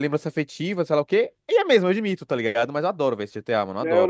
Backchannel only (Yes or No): No